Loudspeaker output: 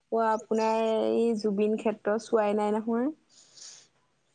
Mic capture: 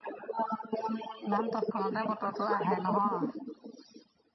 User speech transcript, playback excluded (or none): নান তৎক্ষণতে বতৰটো আহে নহয়।